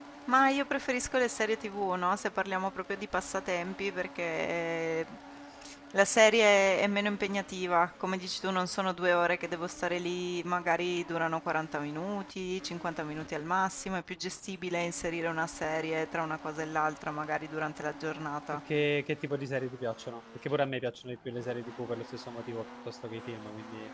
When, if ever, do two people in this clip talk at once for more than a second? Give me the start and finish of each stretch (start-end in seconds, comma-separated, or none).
none